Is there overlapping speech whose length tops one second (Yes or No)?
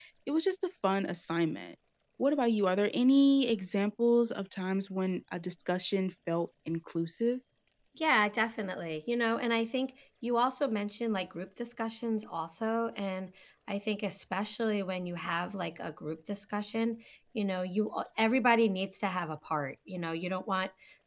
No